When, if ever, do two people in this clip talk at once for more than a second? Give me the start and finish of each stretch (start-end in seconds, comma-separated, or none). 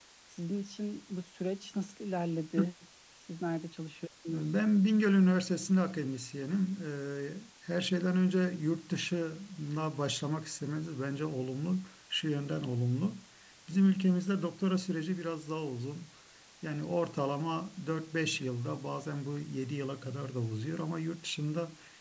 none